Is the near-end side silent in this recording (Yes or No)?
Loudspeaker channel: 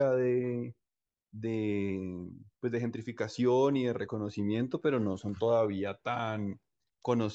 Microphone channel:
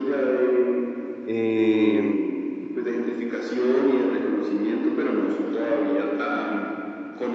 No